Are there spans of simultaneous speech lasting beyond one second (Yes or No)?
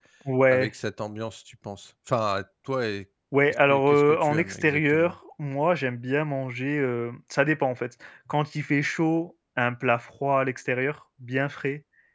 Yes